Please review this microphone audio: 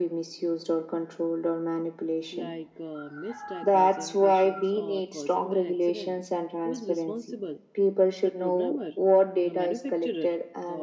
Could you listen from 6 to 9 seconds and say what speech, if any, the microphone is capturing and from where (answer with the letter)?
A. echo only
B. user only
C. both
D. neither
C